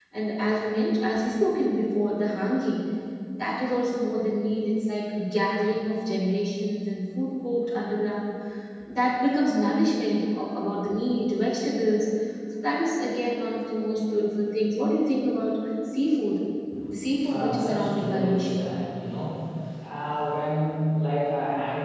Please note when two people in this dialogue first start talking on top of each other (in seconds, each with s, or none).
17.3 s